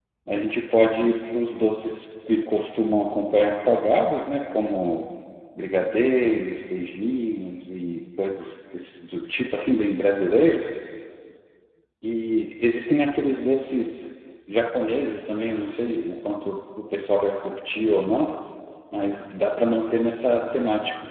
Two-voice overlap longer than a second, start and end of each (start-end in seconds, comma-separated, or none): none